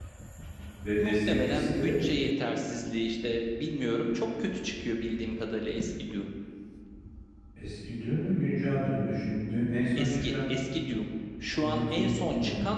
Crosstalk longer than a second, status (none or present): present